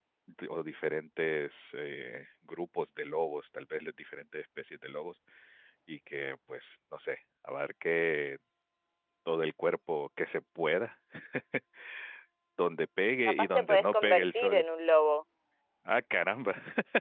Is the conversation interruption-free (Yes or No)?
No